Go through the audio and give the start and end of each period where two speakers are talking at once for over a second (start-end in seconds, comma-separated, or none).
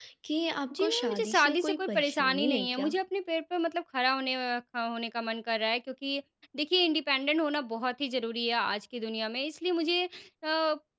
0.8-2.9